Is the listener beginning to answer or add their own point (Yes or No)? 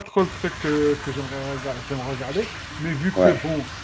No